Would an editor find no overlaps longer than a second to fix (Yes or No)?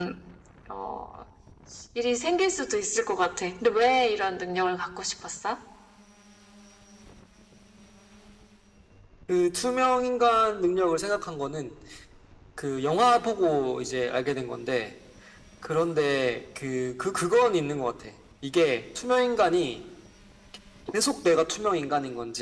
Yes